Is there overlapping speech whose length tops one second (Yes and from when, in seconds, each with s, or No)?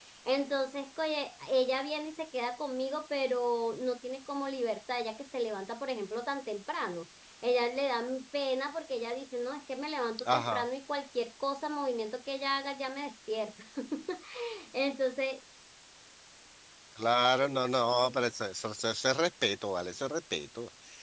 No